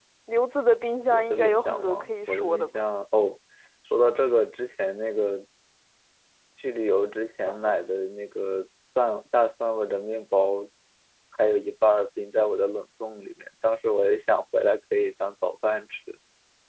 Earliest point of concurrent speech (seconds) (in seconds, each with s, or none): 1.1 s